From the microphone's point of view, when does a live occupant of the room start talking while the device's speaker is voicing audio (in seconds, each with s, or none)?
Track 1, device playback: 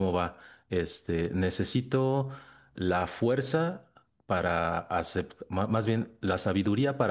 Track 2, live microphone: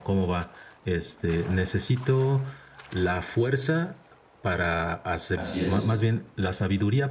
5.3 s